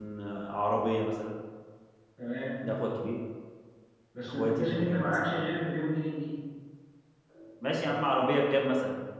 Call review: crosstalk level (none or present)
present